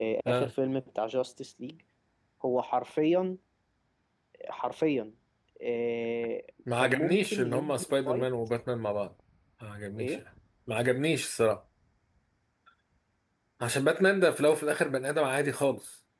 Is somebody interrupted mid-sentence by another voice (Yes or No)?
Yes